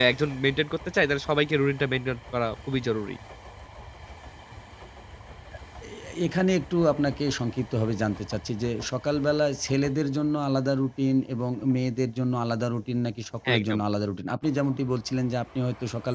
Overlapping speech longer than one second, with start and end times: none

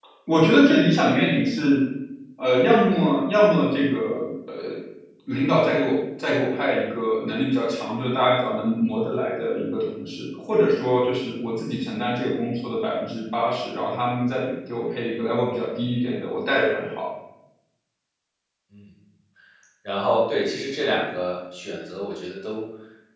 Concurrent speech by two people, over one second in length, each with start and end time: none

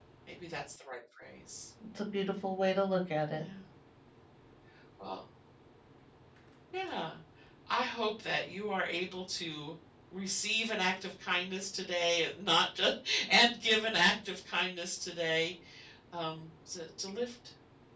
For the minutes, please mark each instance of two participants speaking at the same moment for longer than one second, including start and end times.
none

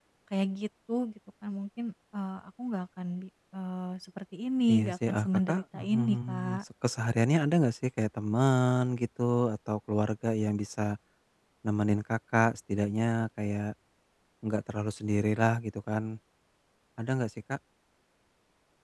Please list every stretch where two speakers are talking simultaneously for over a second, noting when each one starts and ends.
4.7-6.6

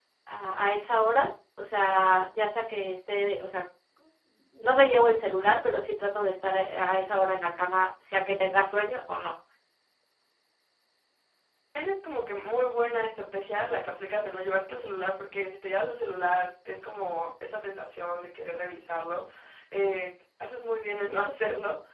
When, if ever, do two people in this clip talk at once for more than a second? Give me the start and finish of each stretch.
none

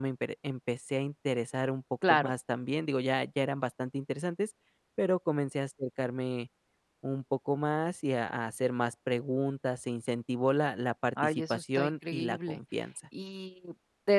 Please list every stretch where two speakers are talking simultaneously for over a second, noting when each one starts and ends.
11.2-12.6

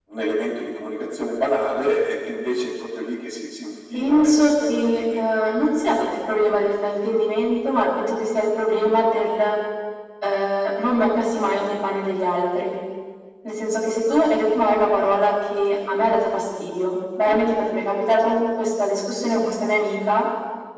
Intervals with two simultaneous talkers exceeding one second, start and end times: 3.9-5.3

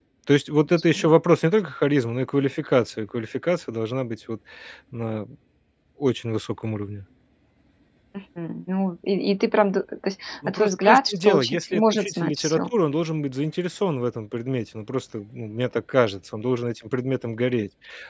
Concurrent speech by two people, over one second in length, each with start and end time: 10.5-12.6

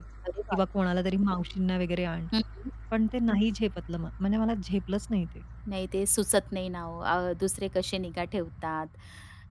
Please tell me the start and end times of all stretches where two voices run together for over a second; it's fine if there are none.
none

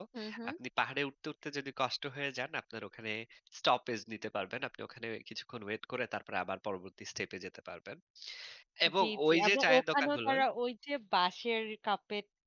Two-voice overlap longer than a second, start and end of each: 9.0-10.4

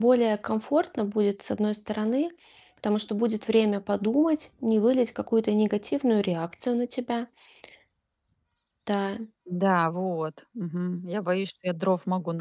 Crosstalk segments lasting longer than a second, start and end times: none

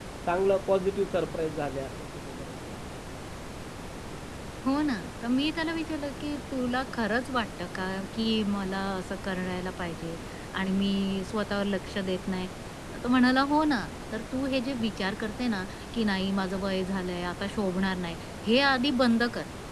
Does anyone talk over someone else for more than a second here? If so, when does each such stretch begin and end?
none

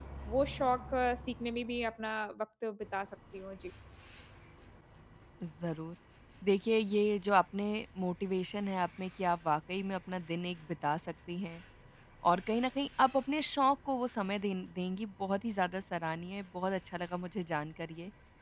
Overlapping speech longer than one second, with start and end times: none

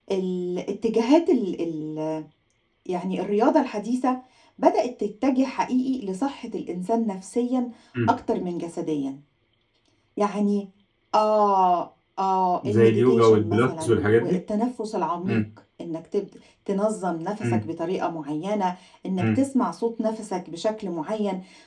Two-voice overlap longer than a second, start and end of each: 12.7-14.4

